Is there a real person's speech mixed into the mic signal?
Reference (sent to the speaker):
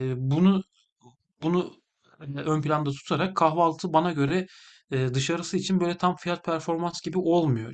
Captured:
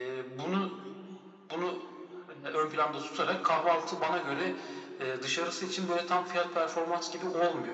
No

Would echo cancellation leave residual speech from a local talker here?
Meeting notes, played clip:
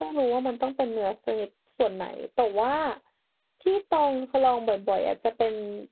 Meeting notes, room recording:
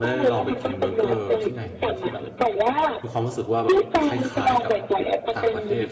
Yes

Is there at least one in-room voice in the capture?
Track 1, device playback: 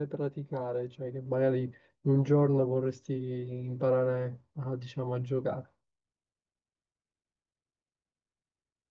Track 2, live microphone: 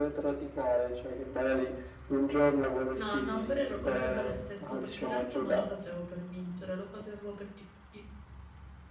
Yes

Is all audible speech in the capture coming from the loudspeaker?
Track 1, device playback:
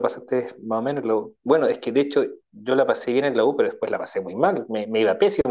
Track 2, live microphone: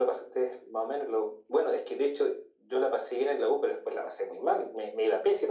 Yes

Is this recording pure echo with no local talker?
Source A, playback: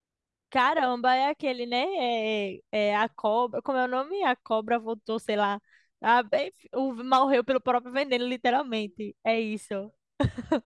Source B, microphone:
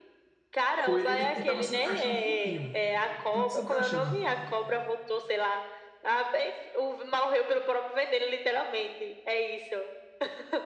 No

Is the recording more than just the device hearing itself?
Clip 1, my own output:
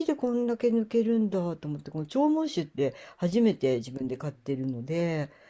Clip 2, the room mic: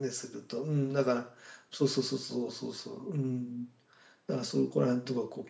Yes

